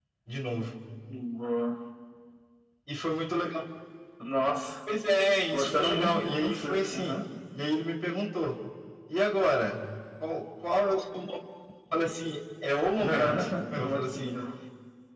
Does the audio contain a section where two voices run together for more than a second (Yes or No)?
Yes